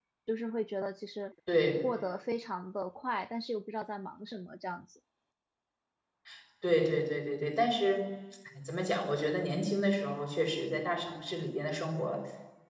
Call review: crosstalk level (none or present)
none